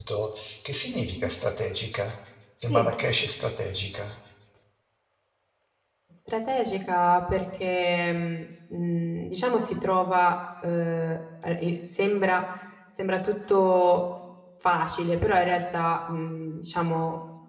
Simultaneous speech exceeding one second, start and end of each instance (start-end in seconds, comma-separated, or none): none